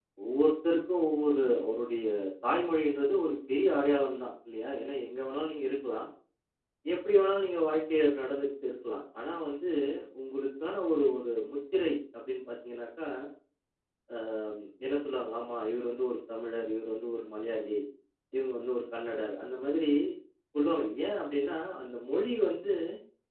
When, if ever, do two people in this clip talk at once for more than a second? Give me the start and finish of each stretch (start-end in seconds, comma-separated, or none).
none